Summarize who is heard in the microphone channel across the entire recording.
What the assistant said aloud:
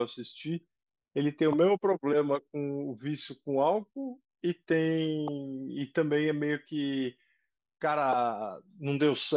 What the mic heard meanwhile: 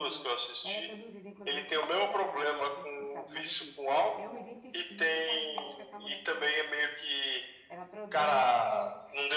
both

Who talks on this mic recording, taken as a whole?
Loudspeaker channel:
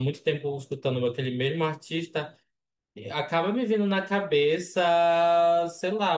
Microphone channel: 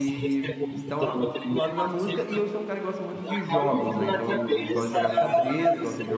both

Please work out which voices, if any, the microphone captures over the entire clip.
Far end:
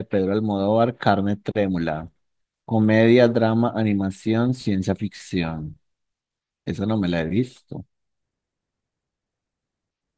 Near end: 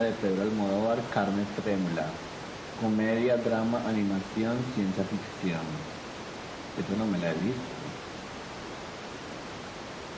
echo only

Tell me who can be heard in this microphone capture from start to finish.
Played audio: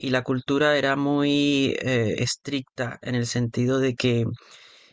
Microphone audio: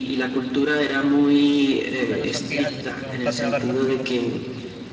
both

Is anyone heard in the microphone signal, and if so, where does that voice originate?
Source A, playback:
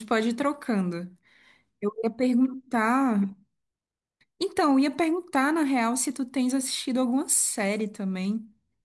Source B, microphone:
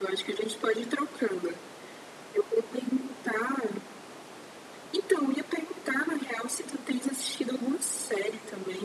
echo only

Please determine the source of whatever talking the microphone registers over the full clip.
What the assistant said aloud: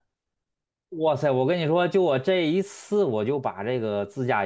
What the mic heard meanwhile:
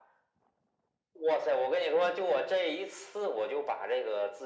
echo only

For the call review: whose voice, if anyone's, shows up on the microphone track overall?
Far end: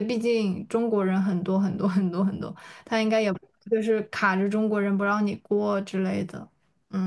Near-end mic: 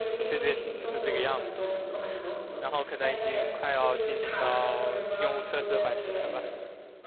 both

